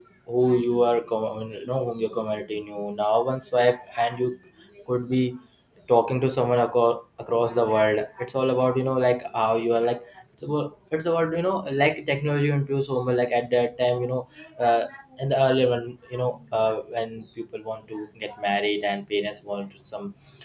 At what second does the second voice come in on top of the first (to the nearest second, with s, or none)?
none